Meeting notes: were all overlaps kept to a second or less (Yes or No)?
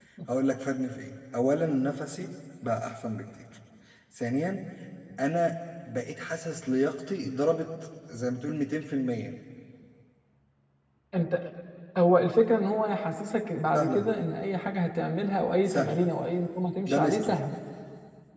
Yes